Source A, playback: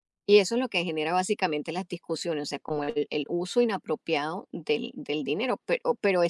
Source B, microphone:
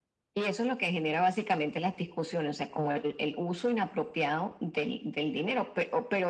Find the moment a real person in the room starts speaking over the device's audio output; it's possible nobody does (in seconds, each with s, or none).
none